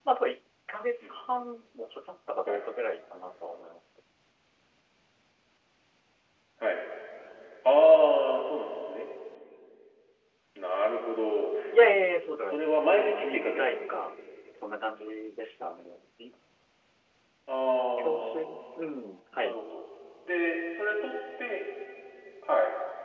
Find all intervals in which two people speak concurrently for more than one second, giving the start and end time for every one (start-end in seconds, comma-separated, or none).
12.4-13.8